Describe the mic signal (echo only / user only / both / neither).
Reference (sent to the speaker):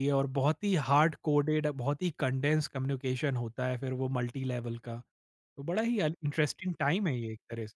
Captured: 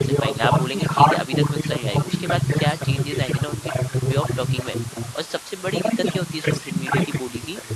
both